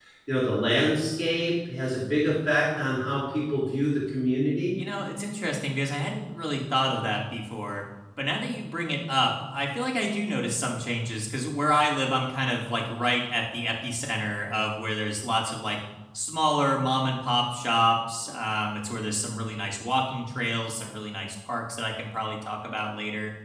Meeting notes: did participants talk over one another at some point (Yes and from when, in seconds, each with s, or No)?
No